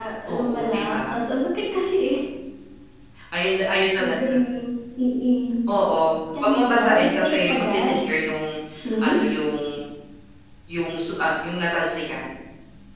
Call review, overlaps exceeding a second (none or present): present